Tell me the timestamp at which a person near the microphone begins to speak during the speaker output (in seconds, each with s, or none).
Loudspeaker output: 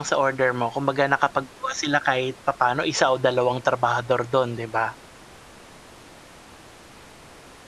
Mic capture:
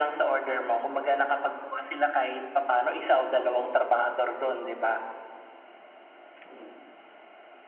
none